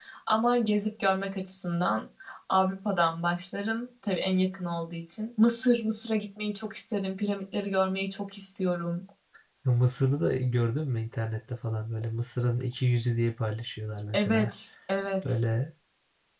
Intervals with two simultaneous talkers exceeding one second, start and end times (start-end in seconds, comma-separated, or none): none